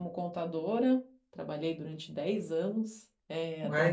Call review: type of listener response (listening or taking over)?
taking over